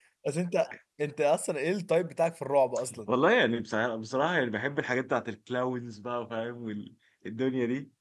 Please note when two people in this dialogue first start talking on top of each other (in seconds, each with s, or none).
none